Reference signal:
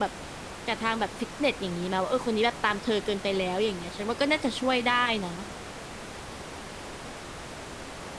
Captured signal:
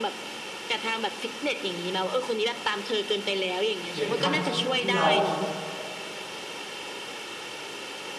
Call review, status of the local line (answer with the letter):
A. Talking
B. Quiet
A